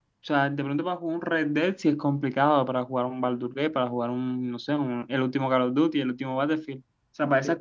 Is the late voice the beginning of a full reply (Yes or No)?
No